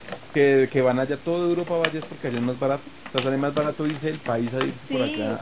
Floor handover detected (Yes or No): Yes